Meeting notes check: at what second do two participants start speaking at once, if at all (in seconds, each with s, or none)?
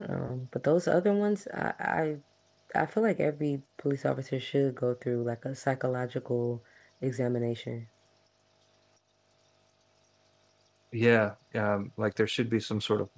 none